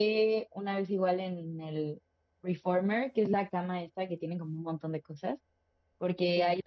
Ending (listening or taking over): listening